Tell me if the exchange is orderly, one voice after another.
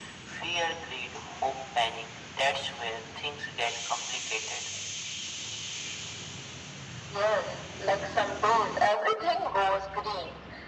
Yes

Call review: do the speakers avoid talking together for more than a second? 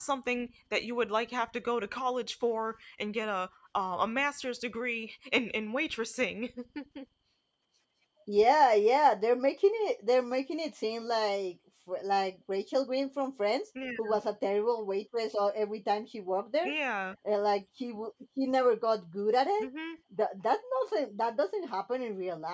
Yes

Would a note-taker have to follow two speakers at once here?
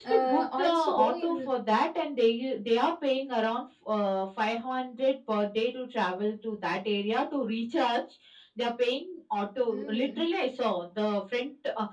Yes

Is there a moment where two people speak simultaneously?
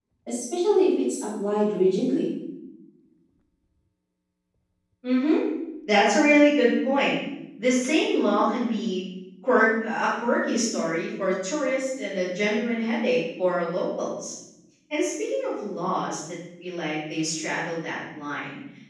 No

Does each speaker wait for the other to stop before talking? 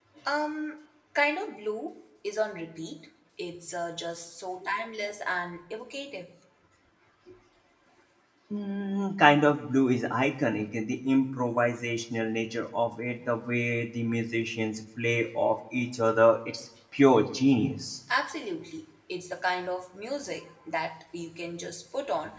Yes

